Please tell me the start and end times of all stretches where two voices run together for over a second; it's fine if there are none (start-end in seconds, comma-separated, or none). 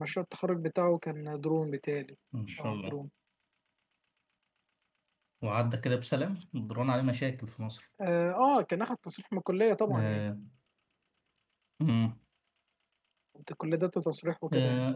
none